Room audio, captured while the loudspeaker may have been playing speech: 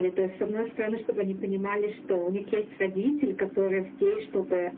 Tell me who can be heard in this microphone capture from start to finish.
echo only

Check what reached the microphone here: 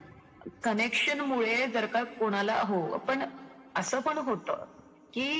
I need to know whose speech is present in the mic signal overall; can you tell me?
echo only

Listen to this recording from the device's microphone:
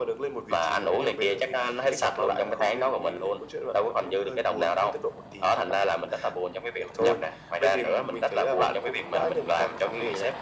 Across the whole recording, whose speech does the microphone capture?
echo only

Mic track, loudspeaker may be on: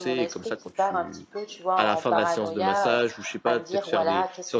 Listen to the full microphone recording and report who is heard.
both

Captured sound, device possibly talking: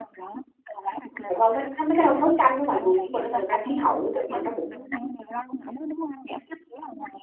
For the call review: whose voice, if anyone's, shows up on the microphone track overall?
both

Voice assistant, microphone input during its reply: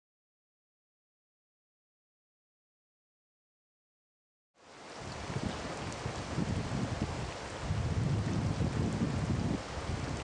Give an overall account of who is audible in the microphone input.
neither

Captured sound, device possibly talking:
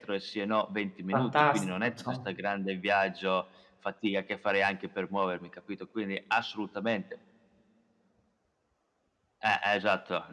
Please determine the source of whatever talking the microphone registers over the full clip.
both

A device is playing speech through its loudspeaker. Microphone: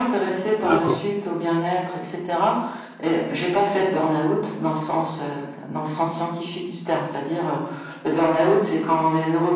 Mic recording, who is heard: both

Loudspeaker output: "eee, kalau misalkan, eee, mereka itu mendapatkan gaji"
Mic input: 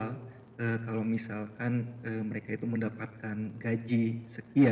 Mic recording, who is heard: echo only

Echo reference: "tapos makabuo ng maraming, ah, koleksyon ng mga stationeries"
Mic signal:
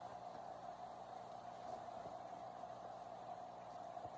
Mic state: neither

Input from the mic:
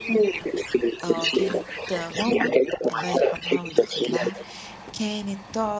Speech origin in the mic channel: both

